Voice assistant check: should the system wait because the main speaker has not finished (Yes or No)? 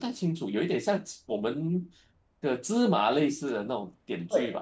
No